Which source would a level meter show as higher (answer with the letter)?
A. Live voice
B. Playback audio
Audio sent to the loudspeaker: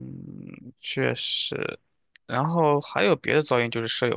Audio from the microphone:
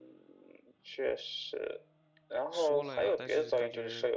B